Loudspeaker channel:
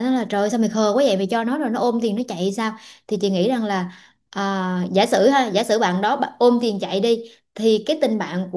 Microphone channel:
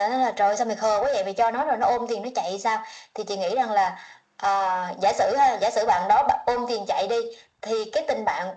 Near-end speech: none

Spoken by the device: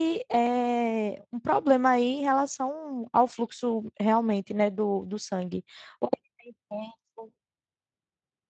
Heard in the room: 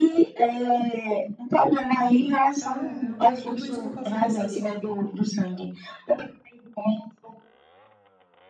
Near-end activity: present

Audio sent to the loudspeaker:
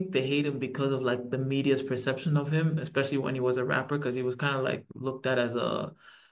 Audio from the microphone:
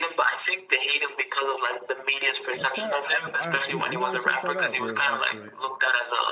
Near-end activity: present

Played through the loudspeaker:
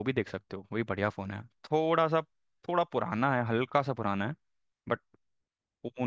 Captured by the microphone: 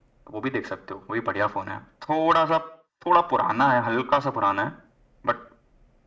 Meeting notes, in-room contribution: none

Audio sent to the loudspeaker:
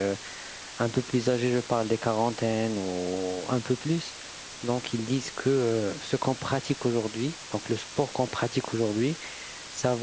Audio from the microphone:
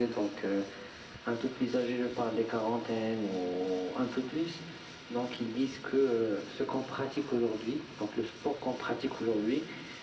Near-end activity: none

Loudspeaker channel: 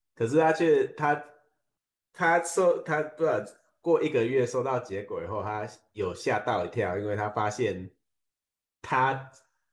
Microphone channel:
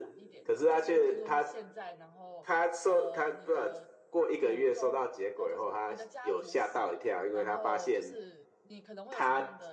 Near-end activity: present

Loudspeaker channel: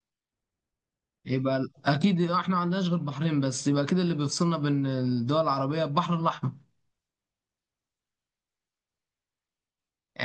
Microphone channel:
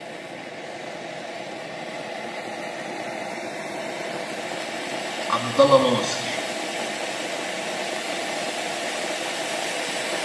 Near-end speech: present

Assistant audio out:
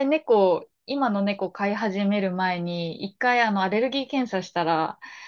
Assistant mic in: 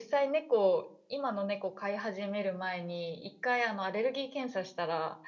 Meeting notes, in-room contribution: none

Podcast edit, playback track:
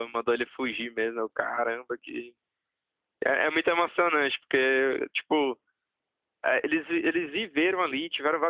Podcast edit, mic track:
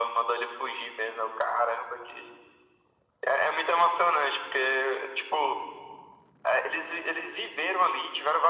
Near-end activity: none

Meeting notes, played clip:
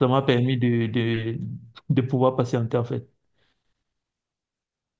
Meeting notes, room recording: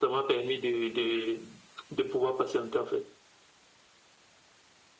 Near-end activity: none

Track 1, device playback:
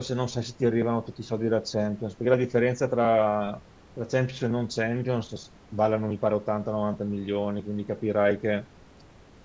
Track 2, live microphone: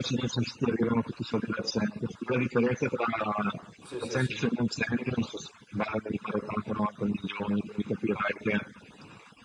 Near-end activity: present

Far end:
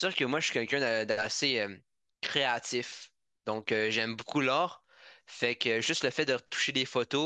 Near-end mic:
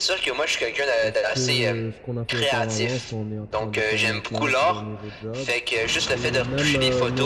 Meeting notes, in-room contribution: present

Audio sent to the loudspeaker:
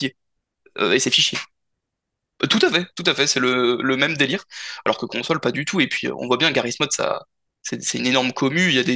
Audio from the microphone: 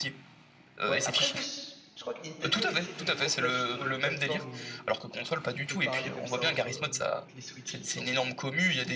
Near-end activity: present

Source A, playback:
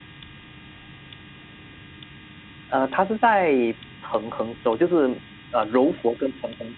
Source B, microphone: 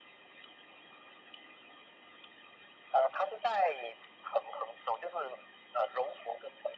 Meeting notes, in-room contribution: none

